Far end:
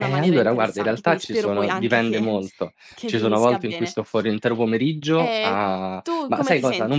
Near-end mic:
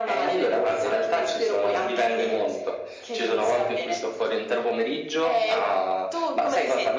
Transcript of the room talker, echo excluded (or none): none